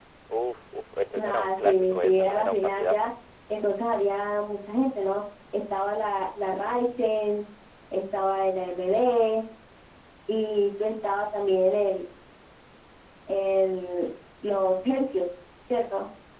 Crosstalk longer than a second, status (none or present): present